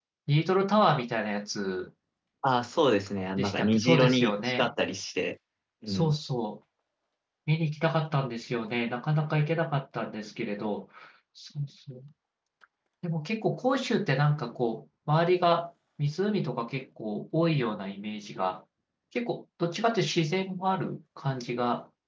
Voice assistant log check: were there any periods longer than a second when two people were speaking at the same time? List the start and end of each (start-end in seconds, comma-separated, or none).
3.4-4.7